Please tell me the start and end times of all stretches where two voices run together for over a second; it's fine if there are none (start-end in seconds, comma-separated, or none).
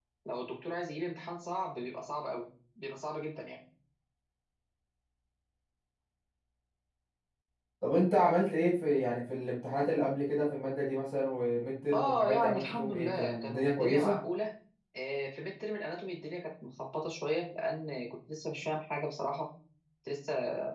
11.9-14.2